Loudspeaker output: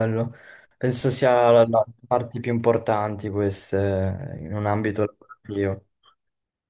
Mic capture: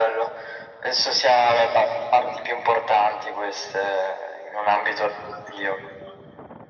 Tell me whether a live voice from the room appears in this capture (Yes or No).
No